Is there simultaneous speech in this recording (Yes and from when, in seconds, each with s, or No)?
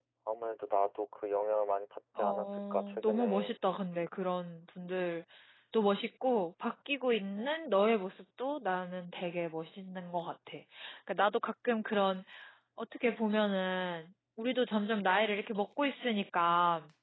Yes, from 2.2 s